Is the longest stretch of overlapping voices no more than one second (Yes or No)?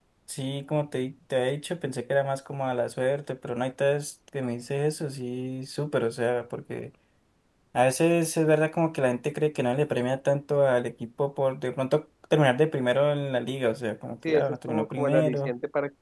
No